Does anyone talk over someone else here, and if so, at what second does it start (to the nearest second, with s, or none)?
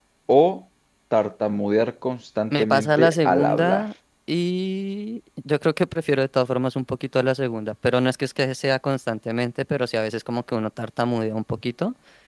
3 s